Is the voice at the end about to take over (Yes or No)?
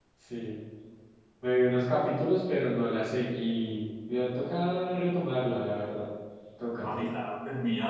Yes